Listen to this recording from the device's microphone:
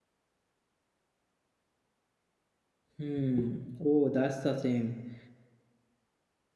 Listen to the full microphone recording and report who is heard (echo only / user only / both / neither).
user only